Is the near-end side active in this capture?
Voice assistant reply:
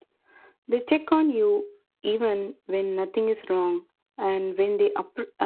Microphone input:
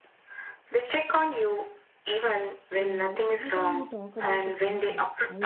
Yes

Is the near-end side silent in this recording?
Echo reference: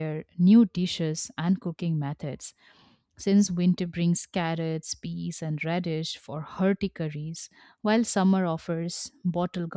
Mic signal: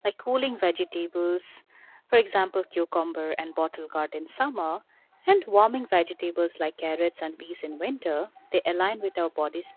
No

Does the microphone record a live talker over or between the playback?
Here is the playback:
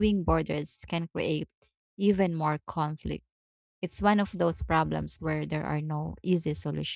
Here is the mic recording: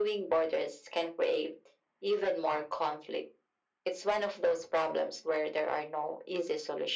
No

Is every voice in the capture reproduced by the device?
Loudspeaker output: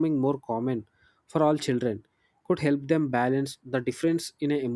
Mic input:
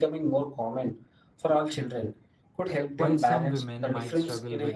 No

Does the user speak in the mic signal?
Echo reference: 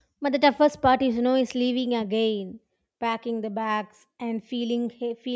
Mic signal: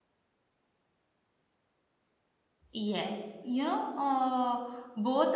Yes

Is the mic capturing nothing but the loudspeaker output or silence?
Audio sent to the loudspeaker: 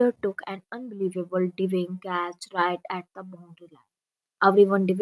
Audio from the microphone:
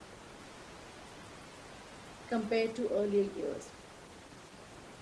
No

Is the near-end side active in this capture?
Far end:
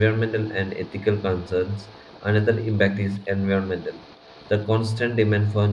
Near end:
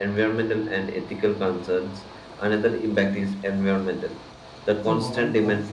Yes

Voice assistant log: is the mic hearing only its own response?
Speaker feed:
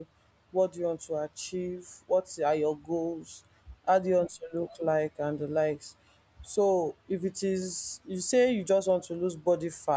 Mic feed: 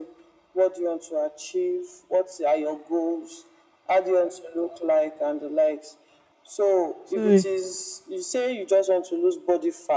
No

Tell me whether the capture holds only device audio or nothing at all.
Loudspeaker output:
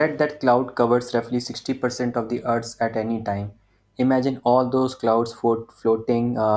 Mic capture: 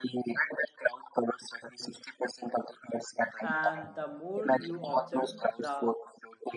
No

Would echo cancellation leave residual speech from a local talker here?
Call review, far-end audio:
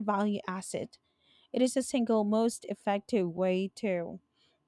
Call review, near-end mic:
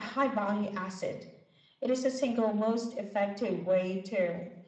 No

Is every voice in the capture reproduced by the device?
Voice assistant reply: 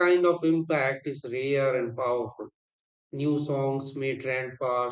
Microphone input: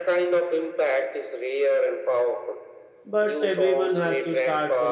No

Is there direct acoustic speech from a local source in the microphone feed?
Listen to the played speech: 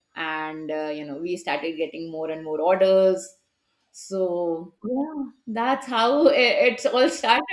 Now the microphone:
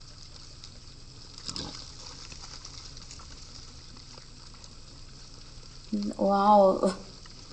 Yes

